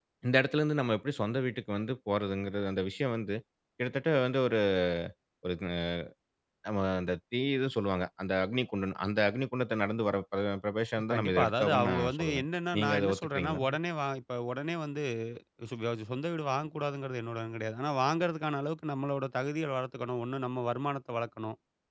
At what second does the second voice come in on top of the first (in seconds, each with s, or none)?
11.1 s